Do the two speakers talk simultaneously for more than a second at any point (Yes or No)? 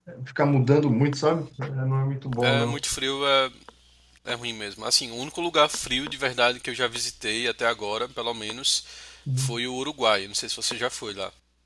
No